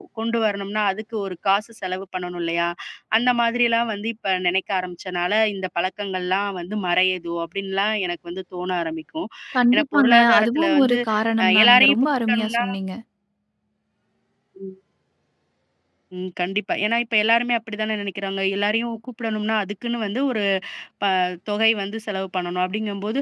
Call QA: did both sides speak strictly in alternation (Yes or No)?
No